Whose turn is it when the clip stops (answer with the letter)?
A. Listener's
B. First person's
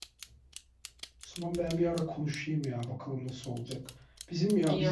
B